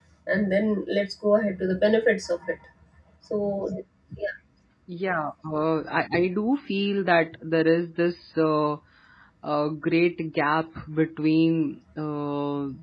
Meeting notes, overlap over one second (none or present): none